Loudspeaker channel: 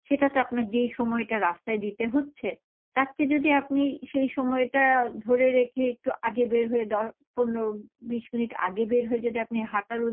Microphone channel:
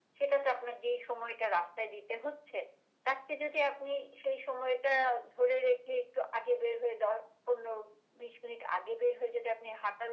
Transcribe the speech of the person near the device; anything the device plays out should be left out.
none

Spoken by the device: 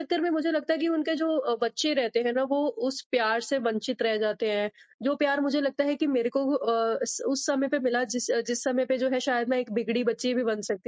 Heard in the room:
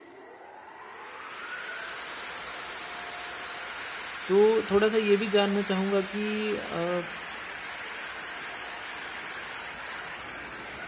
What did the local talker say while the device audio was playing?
तो थोड़ा-सा ये भी जानना चाहूँगा कि अ,

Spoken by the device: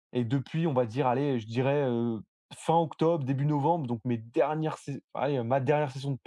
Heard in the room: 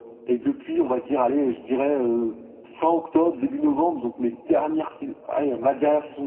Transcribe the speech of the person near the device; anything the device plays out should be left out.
none

